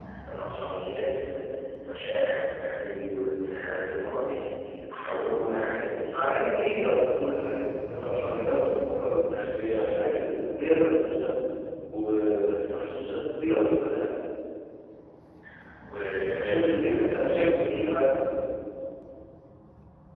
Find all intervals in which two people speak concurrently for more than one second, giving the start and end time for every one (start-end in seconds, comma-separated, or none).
16.3-17.9